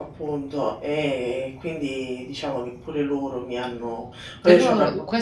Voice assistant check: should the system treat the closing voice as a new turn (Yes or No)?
Yes